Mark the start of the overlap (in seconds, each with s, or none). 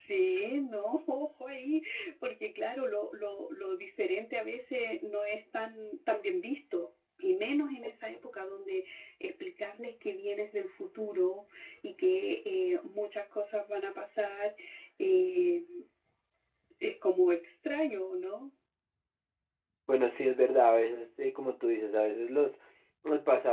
none